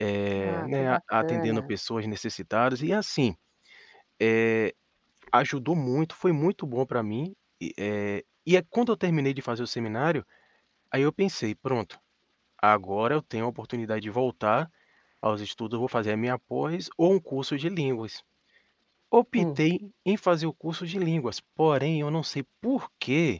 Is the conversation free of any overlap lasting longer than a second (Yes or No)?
No